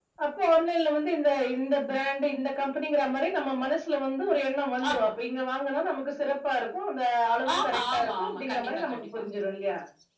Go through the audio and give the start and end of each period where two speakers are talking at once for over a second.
7.6-9.0

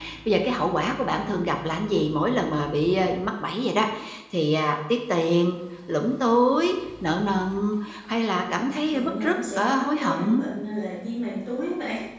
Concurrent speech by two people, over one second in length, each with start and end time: 8.5-10.5

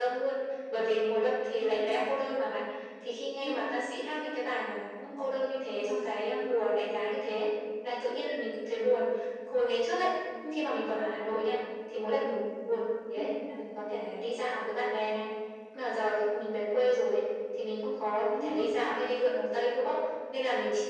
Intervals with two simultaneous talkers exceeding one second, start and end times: none

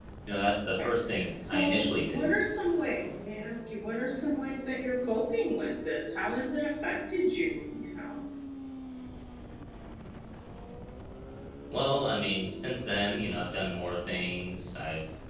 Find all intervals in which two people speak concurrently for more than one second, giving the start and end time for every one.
0.8-2.3

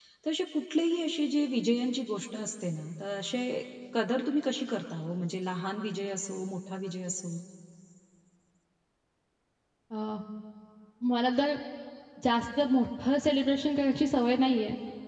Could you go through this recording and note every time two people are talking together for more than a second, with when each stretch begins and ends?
none

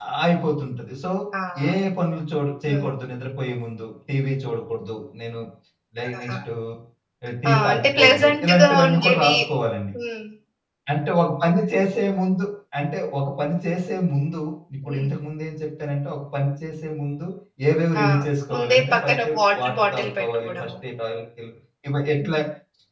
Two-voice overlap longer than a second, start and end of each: 7.5-9.3, 18.5-20.7

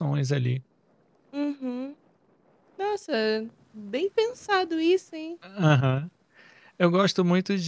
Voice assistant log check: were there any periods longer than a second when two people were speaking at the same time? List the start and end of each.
none

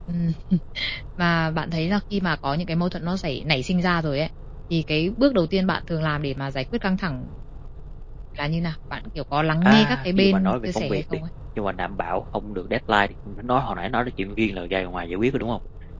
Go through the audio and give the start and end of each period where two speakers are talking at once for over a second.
9.6-11.2

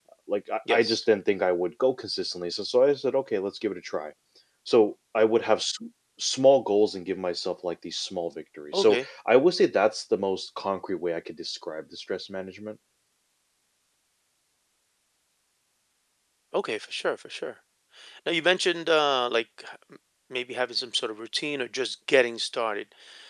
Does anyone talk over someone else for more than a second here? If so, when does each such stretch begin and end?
none

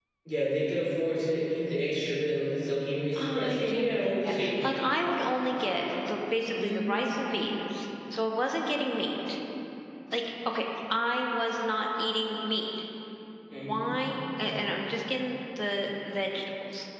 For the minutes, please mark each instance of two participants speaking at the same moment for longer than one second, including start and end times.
3.4-4.7

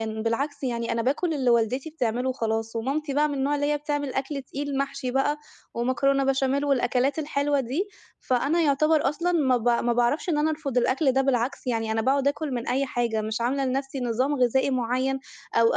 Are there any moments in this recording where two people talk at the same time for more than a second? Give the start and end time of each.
none

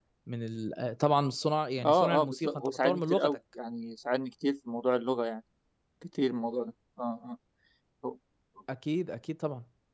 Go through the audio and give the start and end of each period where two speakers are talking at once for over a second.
1.8-3.4

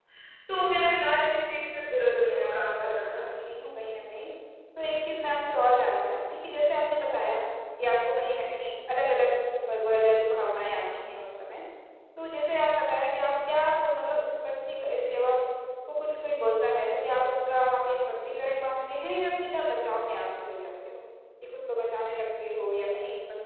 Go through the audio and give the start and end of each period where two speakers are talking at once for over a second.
2.0-3.5

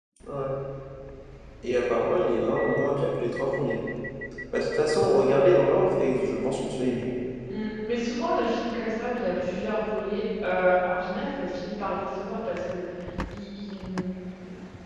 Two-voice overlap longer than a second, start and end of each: none

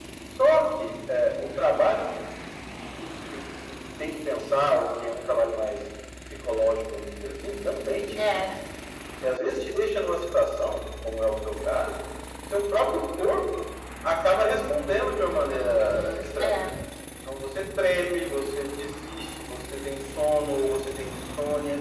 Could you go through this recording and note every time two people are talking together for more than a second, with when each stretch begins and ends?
15.4-16.7

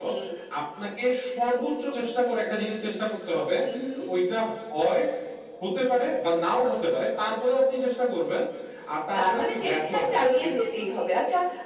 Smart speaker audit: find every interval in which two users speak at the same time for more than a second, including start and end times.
9.2-10.5

